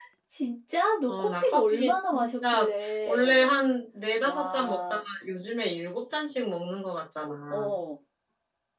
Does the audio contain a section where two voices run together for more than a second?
Yes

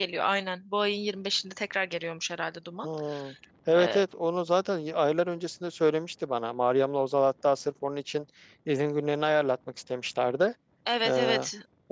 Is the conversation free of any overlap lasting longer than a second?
Yes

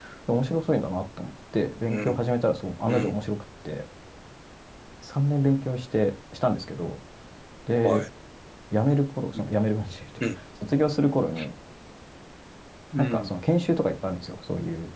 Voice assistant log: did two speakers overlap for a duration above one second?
No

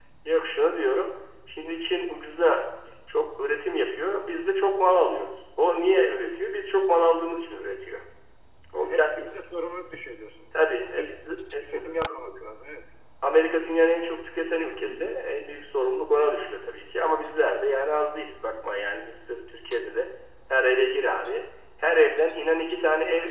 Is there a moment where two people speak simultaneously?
Yes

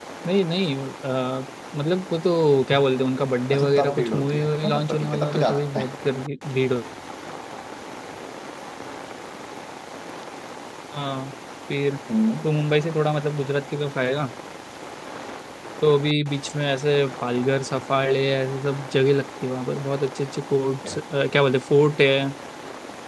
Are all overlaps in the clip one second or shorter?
No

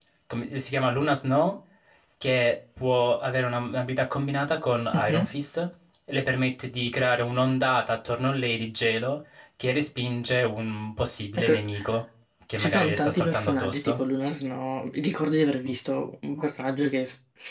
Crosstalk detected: Yes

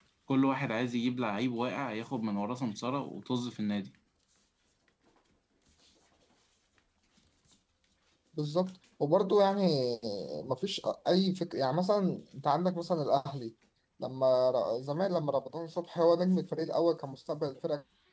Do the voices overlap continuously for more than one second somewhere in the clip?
No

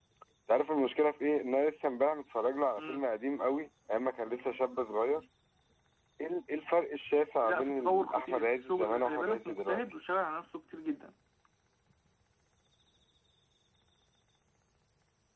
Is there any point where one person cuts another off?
Yes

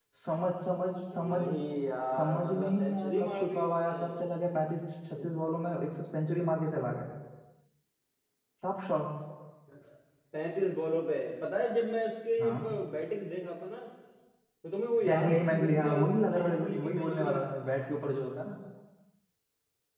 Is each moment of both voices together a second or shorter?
No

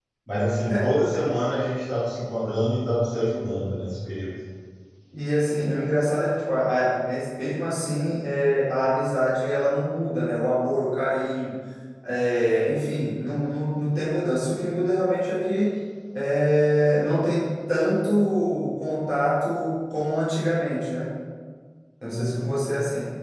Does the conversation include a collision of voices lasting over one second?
No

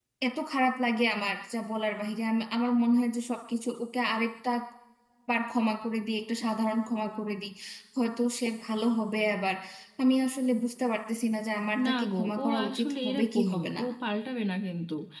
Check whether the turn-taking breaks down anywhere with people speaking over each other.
Yes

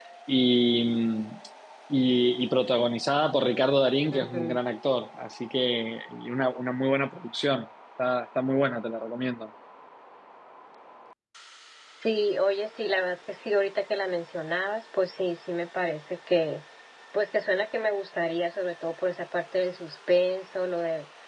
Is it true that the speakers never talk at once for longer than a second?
Yes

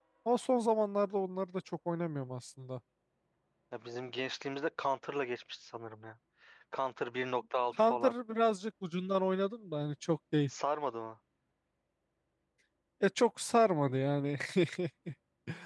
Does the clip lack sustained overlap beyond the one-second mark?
Yes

